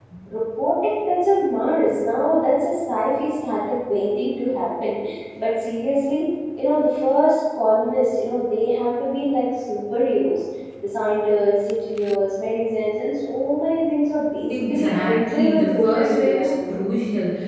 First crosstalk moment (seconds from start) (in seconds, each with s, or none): 14.5 s